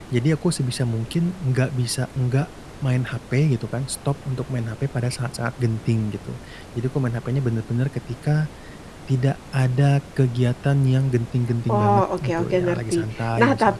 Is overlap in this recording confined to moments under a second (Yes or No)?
No